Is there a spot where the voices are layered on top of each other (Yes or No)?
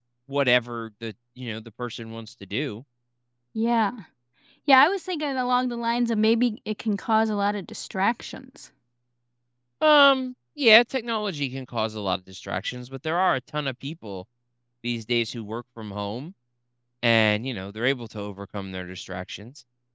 No